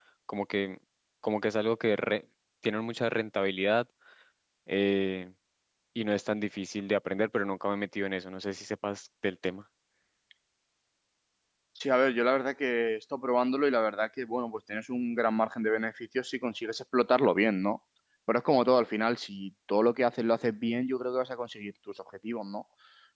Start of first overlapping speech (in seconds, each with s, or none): none